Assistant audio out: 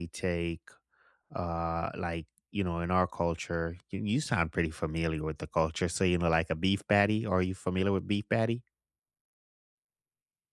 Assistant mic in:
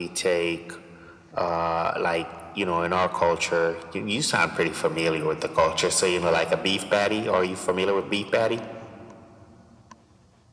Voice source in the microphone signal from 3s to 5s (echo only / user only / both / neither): echo only